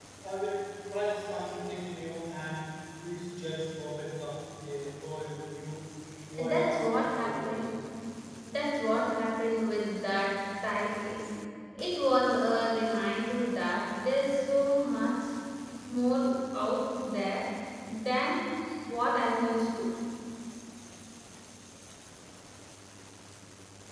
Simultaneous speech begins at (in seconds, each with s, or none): 6.4 s